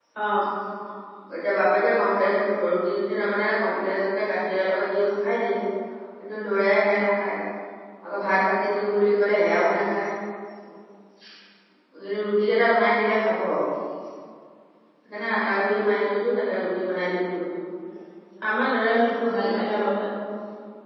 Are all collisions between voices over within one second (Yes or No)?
Yes